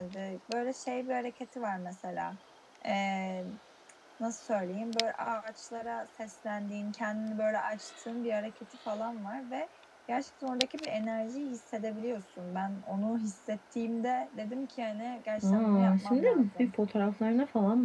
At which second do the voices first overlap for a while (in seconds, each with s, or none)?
15.4 s